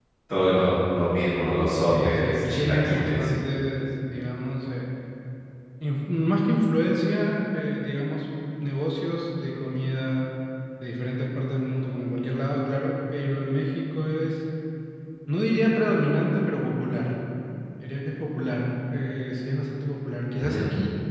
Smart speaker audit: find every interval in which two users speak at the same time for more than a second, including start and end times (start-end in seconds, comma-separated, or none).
1.9-3.3